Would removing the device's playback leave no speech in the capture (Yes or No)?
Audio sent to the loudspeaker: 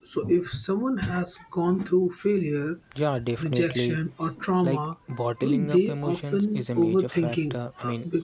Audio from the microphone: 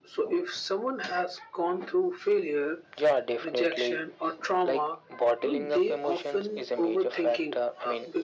Yes